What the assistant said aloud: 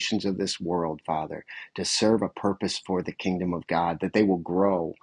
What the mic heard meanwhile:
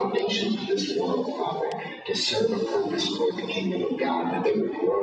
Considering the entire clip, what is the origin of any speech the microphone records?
echo only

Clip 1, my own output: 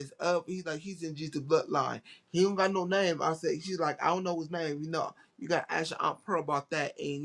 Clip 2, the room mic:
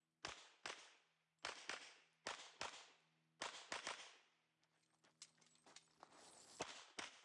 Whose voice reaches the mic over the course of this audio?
neither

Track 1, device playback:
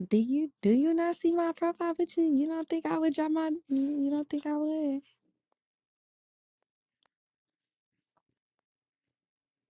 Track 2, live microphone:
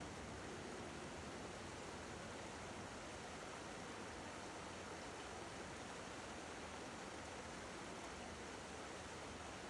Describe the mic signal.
neither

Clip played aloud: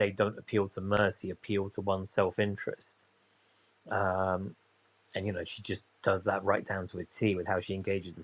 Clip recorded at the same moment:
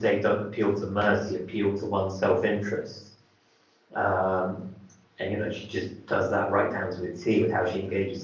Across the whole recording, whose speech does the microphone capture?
echo only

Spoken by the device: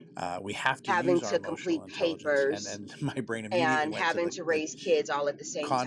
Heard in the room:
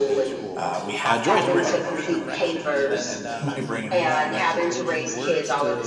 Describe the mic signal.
both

